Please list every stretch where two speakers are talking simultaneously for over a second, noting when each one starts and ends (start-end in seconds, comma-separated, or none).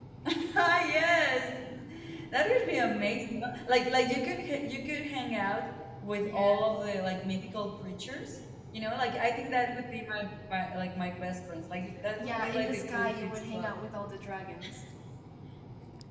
12.2-13.7